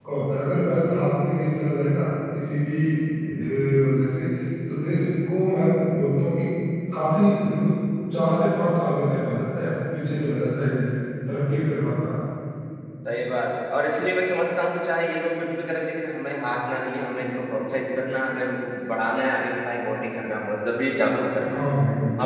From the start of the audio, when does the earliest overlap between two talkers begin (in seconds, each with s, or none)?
none